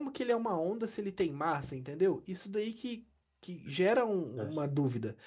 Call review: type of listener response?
listening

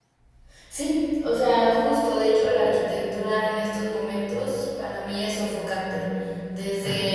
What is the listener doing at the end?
listening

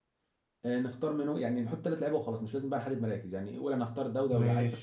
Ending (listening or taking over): listening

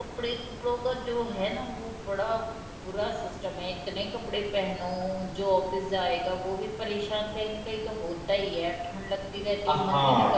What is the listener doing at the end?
taking over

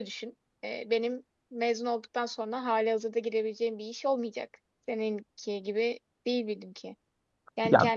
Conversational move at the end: listening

